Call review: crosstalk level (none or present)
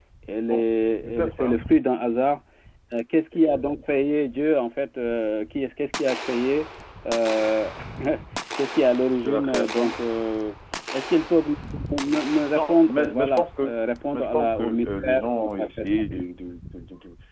present